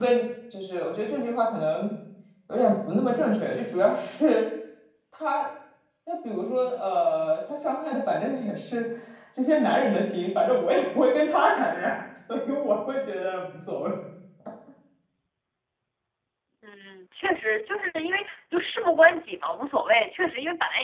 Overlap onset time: none

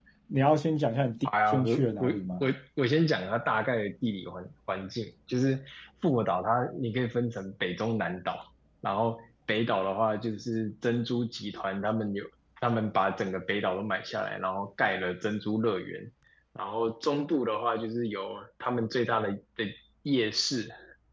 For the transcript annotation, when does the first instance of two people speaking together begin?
1.2 s

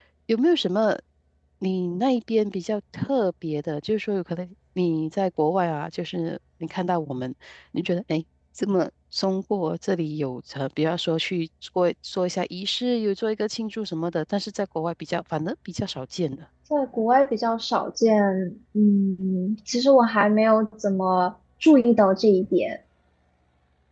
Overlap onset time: none

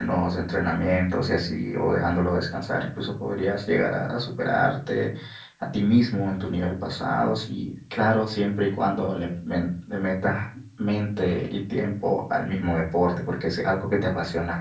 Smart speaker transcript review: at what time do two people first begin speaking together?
none

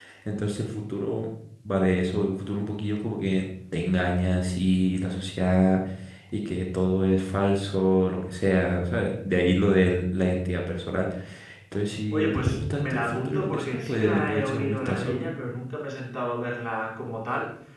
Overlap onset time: 12.1 s

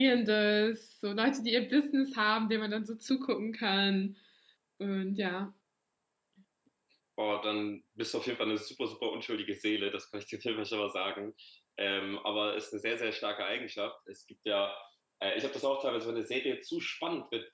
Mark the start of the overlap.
none

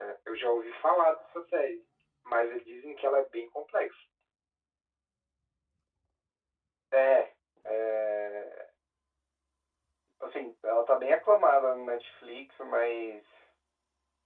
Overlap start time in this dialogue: none

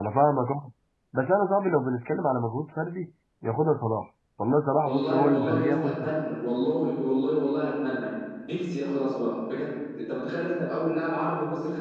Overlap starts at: 4.8 s

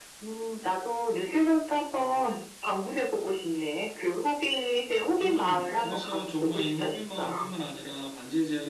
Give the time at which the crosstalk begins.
5.2 s

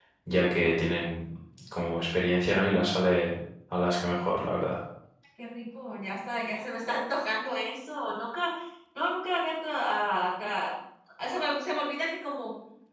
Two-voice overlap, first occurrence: none

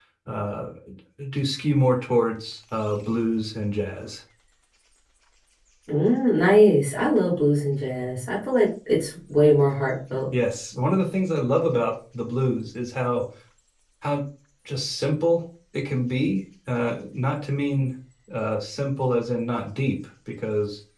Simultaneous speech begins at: none

